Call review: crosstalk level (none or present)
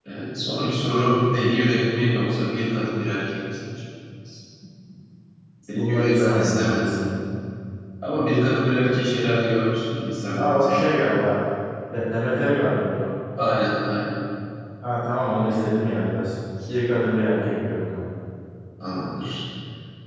present